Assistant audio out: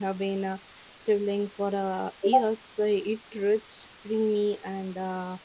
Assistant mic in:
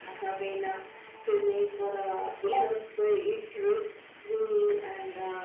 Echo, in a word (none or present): present